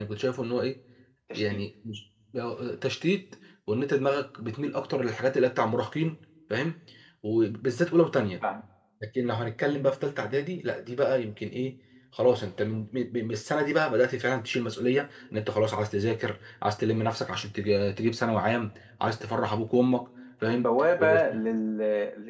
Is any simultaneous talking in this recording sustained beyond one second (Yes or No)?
No